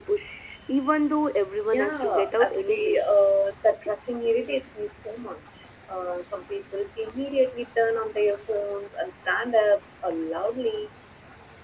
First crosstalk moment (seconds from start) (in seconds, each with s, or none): 1.6 s